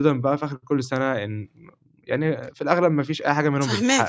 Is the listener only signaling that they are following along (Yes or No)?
No